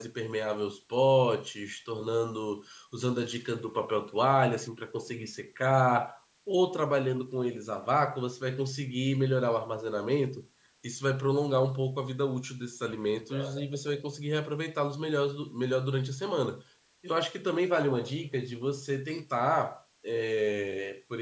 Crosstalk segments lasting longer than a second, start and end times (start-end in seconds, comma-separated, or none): none